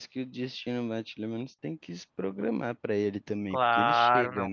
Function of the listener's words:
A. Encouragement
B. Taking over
B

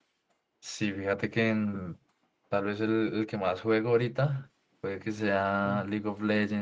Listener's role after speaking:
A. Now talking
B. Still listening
B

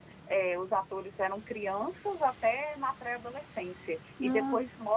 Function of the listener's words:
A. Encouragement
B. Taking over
A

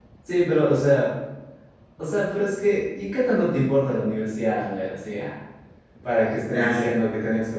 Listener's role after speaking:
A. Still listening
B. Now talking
A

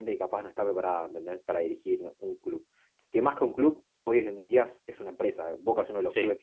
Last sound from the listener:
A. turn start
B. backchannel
B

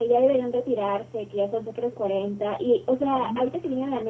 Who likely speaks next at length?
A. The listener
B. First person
B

